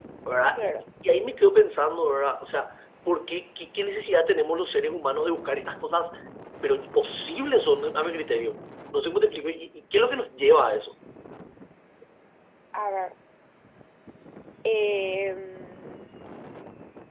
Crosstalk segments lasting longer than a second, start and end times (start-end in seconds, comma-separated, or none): none